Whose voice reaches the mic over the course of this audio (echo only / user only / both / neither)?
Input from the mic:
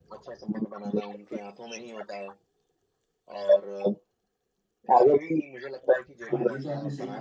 both